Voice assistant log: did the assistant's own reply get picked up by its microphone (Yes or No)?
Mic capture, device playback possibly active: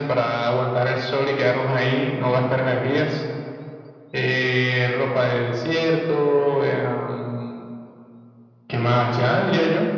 Yes